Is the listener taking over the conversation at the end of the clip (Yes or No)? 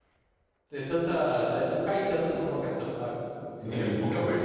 Yes